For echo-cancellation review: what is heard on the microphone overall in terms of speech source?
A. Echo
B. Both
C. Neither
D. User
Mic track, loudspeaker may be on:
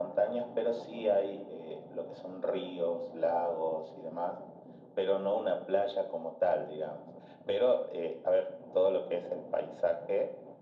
A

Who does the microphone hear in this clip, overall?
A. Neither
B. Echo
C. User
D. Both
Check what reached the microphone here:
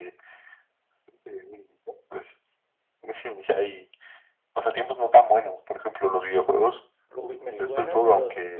D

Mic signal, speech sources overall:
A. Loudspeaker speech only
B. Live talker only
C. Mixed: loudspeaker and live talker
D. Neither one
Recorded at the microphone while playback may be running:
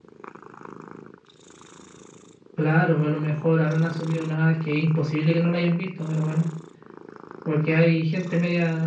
A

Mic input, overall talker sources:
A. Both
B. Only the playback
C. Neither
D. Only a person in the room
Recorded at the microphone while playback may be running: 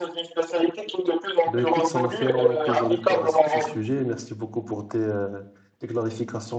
A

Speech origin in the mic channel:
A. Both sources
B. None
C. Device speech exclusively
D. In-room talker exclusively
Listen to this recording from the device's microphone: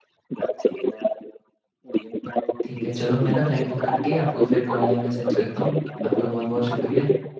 A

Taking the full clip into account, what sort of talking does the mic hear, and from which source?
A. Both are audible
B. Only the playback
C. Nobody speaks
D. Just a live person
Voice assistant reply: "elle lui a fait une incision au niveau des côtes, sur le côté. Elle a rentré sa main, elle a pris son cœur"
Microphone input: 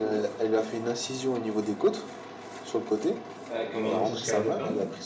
A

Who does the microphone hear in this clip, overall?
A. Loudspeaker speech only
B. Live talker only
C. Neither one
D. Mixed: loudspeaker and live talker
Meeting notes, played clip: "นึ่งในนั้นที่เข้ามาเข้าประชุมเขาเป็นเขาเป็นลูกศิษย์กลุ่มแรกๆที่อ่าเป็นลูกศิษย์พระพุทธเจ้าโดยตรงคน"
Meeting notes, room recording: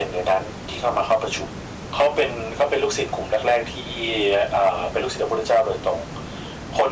A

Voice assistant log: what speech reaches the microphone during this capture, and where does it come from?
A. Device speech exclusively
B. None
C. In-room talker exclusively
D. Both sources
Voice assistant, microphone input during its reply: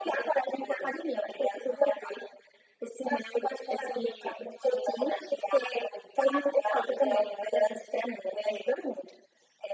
A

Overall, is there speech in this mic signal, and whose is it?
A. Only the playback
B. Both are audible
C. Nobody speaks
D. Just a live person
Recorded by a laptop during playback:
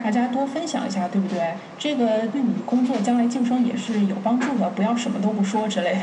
A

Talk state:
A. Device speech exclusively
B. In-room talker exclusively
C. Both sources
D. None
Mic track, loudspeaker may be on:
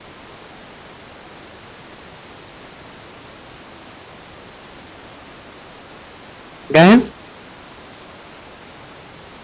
B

